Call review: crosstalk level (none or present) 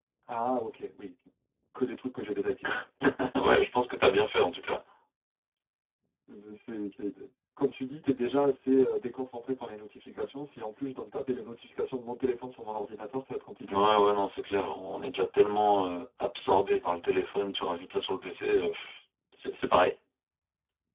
none